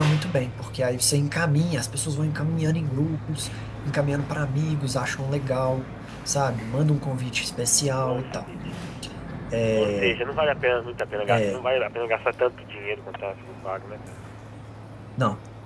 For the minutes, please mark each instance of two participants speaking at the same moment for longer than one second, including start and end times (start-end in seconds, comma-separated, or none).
none